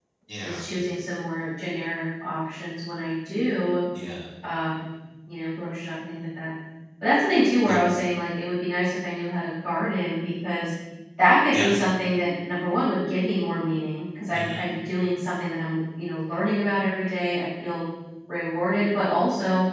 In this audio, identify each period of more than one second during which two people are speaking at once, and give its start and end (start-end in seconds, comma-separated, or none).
none